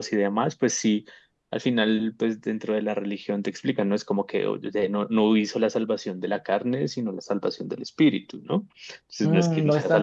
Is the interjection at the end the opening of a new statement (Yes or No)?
Yes